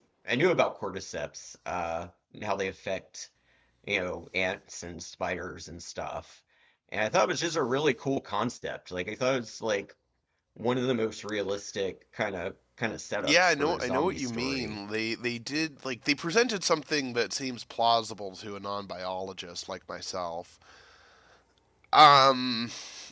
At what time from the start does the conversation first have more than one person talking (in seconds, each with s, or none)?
13.2 s